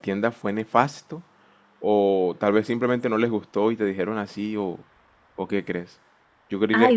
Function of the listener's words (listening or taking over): taking over